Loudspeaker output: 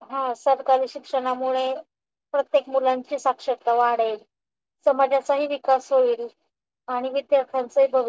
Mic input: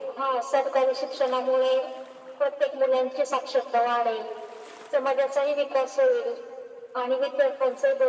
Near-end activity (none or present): none